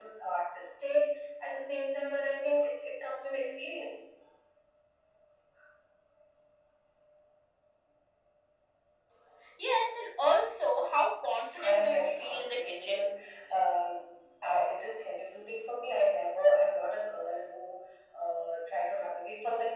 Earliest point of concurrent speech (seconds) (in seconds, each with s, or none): 11.5 s